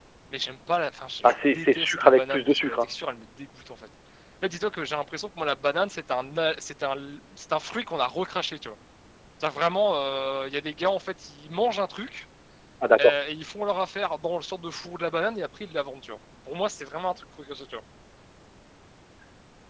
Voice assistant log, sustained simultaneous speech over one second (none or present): present